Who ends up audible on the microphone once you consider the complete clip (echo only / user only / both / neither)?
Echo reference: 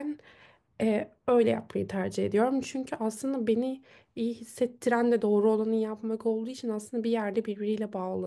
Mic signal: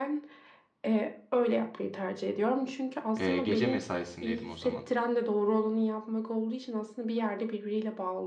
both